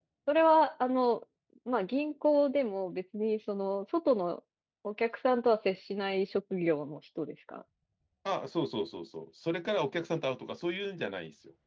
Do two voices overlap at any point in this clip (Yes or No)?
No